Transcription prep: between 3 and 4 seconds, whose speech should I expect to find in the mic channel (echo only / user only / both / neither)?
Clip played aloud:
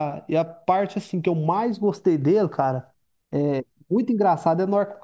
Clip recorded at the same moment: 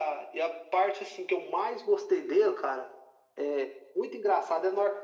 echo only